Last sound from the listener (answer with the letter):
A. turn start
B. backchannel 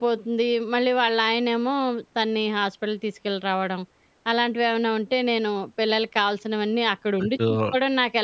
B